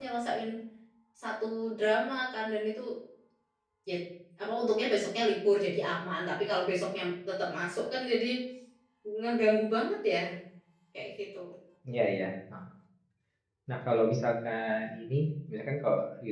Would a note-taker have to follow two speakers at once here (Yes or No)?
No